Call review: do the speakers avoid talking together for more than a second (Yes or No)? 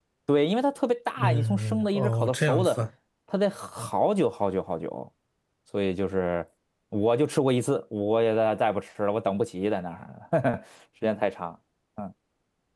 No